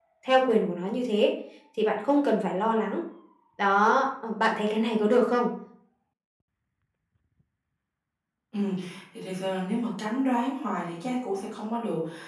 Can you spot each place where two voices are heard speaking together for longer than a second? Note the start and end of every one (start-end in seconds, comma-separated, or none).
none